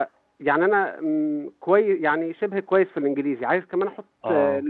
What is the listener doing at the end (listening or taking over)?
listening